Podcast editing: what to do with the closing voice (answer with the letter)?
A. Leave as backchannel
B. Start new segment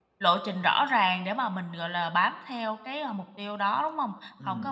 A